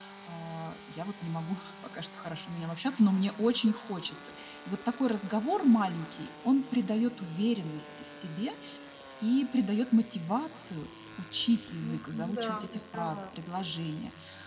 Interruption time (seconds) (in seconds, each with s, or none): 11.8 s